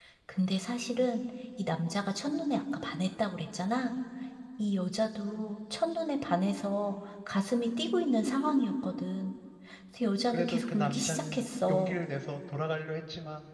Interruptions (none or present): present